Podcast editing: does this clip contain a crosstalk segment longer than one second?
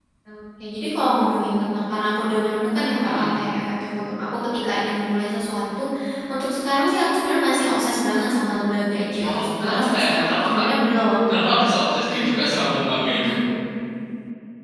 Yes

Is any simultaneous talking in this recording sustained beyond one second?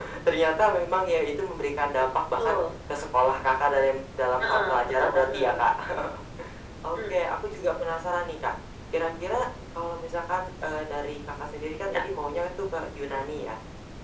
Yes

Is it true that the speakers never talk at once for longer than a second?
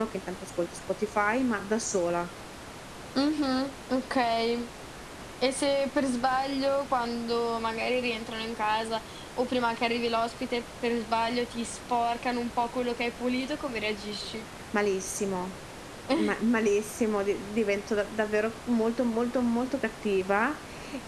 Yes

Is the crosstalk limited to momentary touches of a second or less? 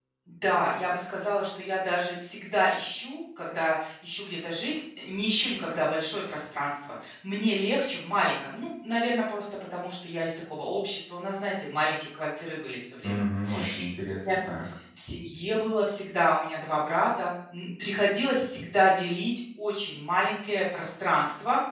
Yes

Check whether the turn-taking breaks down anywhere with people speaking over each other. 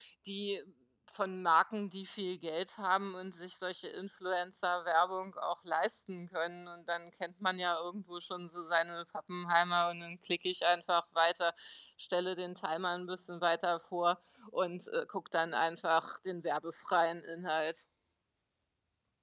No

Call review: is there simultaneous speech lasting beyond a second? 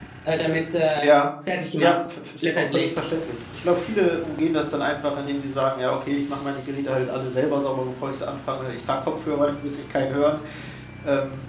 No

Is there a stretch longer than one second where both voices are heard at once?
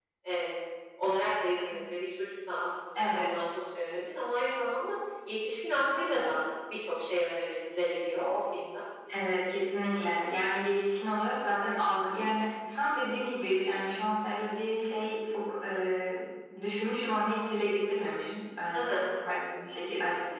No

